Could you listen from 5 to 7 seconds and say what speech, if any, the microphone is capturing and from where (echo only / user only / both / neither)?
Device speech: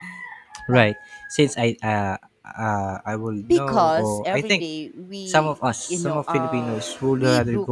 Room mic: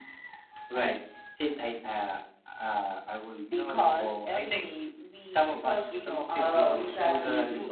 both